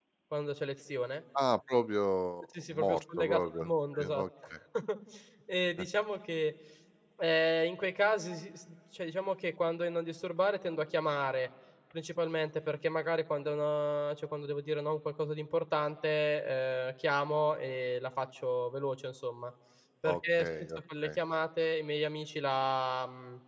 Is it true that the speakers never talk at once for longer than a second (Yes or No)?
No